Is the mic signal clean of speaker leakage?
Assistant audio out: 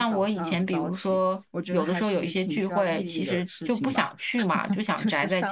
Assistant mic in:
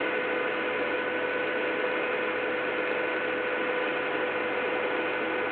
Yes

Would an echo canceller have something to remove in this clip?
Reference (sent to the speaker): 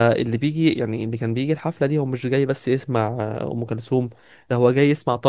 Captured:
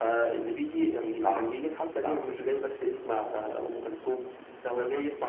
Yes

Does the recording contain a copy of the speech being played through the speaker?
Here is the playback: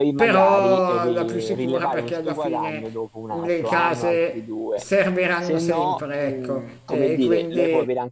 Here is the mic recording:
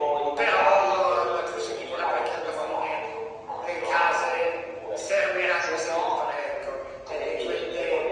Yes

